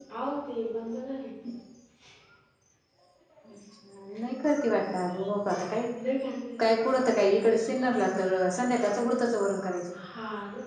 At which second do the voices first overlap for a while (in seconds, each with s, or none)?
none